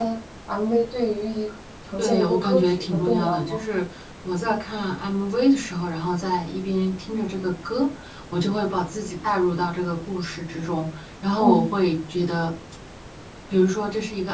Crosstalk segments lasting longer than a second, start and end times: 2.0-3.6

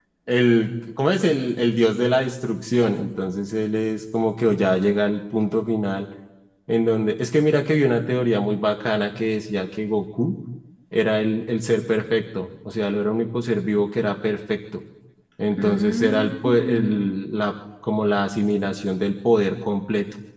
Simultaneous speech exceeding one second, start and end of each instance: 15.6-17.1

